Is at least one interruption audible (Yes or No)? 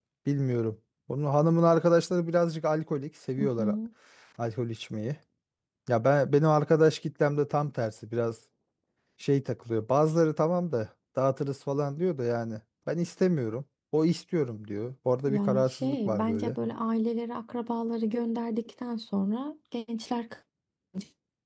Yes